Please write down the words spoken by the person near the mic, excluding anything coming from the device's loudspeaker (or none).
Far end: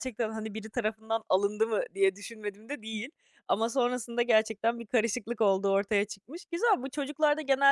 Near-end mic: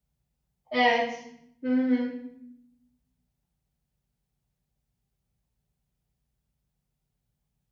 Evet. Hı hı.